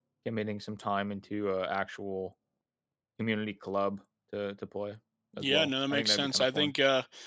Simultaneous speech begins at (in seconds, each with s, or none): 5.4 s